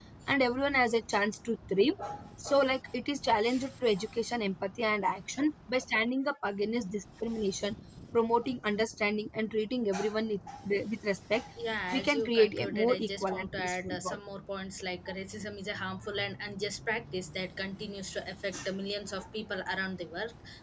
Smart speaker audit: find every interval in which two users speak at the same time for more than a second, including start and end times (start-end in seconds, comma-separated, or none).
11.9-14.2